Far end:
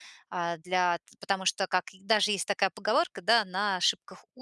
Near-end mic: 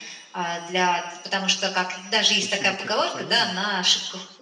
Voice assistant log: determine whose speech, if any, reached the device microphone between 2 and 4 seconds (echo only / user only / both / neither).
both